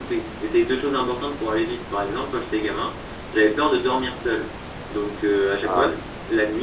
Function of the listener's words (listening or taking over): listening